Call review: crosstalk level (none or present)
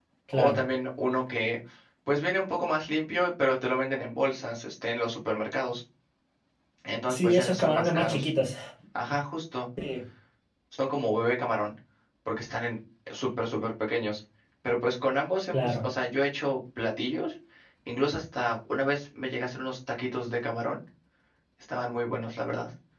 present